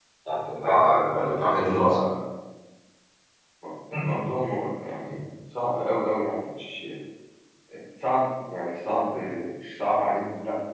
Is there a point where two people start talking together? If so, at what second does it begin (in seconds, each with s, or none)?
0.6 s